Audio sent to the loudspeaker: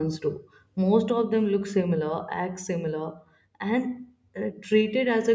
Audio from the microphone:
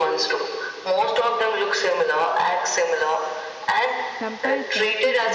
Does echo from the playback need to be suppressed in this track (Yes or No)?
Yes